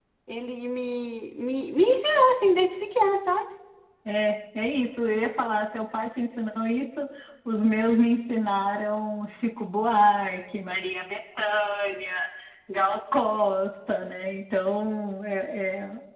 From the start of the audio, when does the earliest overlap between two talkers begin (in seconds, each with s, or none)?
none